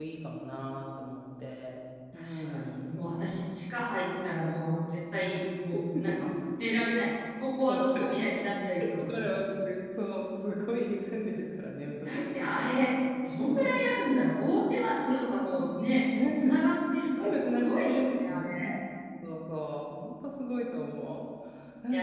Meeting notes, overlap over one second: present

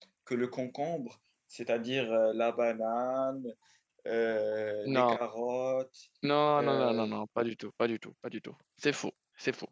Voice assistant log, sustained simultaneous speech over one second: none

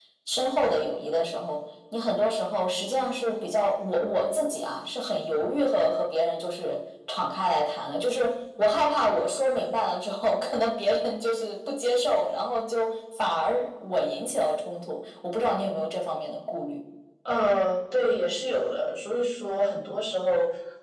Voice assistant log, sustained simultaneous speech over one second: none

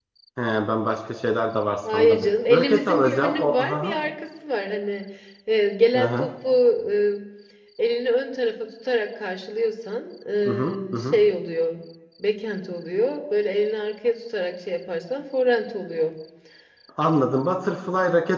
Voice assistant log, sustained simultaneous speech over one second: present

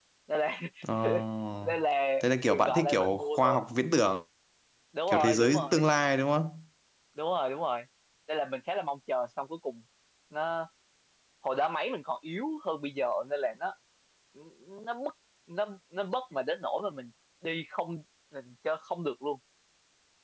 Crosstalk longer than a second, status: present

